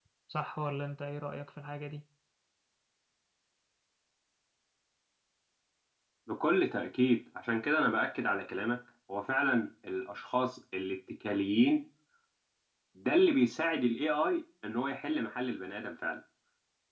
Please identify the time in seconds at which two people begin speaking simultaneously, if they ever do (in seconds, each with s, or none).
none